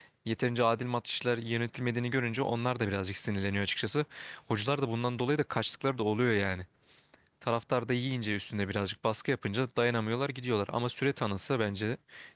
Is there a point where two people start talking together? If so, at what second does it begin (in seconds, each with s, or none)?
none